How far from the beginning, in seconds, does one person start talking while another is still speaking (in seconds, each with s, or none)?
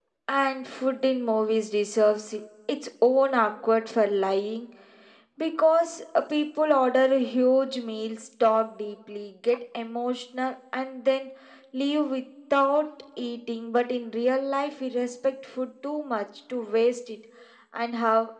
none